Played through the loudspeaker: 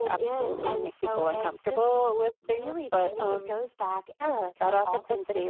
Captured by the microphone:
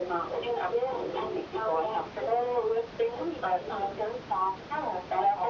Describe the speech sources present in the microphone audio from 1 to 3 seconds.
echo only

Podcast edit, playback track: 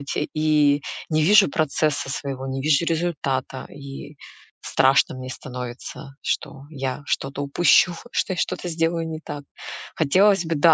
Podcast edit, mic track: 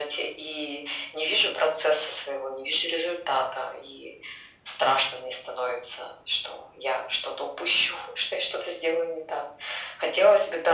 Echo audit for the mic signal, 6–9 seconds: echo only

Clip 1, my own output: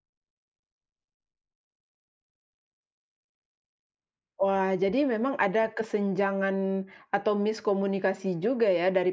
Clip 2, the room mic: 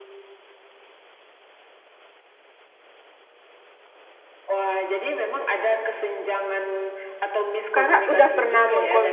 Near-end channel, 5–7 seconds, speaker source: echo only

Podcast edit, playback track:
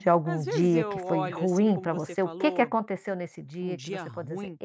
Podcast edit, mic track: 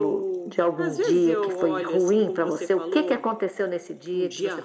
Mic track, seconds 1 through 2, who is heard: echo only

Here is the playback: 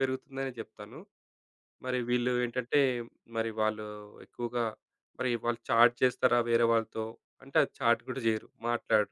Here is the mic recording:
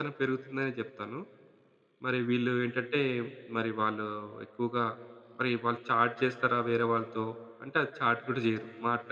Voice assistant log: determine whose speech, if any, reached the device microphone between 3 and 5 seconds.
echo only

